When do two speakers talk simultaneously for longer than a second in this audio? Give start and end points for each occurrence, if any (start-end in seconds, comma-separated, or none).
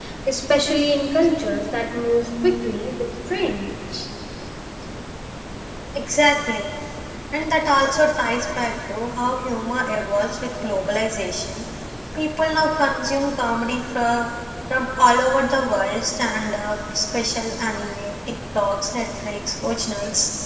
none